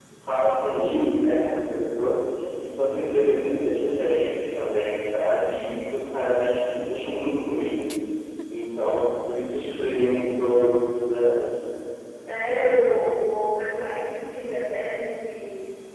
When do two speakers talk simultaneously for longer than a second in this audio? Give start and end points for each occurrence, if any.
none

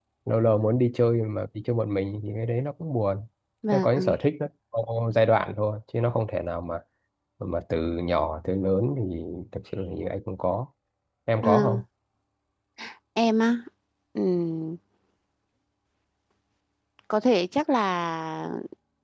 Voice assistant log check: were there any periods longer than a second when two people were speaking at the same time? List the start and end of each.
none

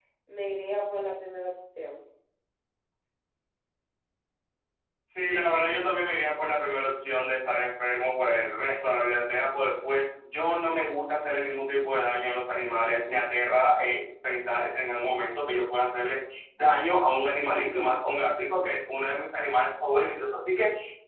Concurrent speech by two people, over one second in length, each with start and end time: none

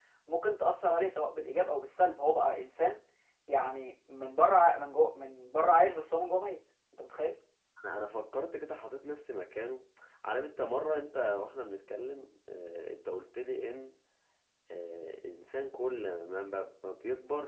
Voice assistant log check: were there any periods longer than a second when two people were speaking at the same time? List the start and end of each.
none

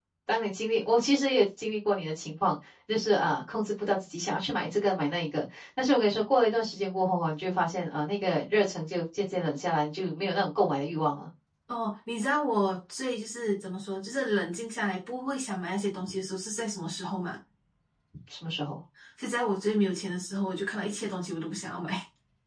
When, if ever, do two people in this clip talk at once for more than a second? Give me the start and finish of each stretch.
none

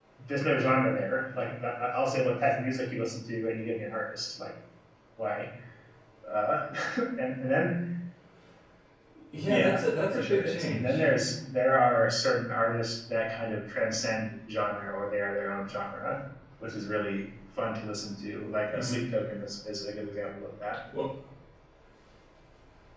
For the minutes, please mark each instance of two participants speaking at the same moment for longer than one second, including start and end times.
9.5-10.9

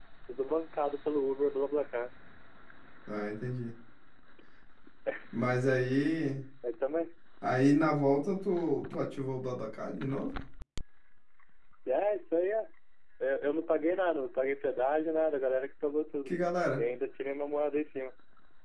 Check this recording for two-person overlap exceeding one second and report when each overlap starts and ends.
none

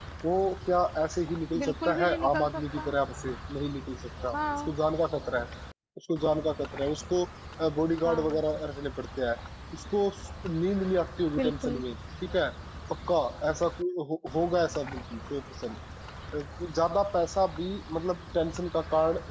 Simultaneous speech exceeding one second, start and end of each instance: 1.6-2.9

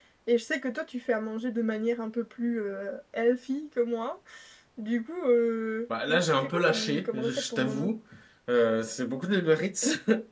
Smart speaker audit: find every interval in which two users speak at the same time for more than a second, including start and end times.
6.1-7.9

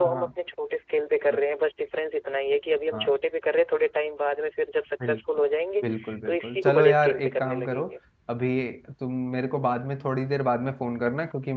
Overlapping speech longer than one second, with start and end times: 6.2-7.8

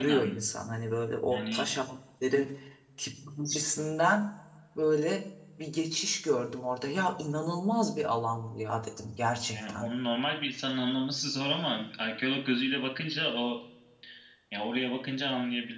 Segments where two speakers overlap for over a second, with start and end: none

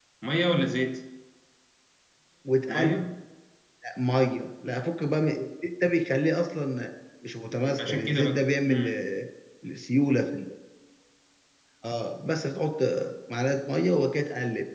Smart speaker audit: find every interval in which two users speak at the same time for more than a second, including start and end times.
7.7-9.0

